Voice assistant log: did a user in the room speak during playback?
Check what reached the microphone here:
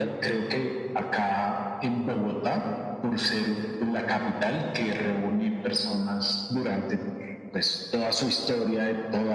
No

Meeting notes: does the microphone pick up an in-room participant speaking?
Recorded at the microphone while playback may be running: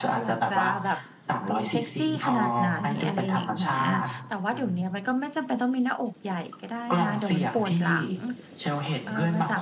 Yes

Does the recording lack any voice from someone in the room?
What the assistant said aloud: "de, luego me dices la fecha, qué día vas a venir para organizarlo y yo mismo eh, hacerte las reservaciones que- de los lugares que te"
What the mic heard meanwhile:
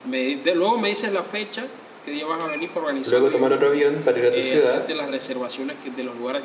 No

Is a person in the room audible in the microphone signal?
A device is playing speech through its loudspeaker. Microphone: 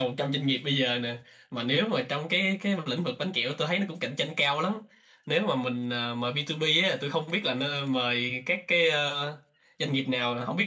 Yes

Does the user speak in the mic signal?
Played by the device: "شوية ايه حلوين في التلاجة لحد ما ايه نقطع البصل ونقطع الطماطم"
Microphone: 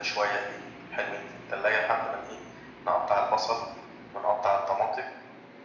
No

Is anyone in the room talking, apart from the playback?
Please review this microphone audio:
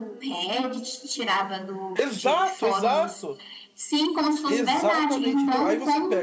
Yes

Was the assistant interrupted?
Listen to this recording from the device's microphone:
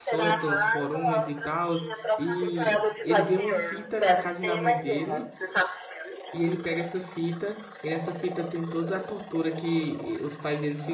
Yes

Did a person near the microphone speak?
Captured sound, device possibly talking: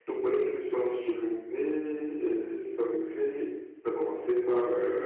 No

